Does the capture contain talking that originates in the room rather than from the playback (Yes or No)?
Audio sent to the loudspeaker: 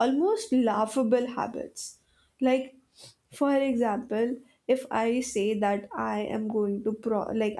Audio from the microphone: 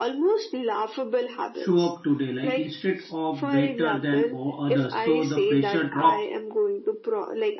Yes